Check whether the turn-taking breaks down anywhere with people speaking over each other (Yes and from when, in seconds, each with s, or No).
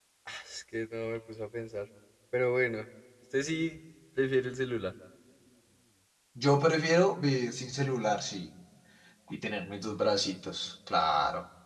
No